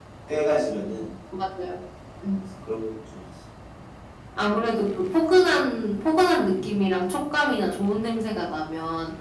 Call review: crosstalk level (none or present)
none